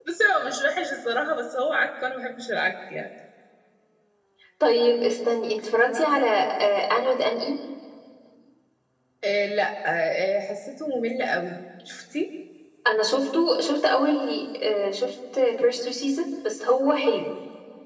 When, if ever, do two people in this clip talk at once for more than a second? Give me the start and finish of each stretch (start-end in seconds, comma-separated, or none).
none